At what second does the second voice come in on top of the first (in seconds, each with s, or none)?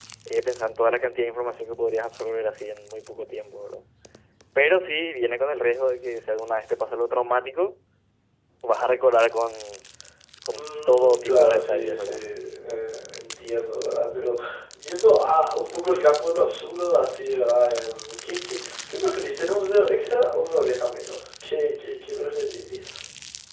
10.5 s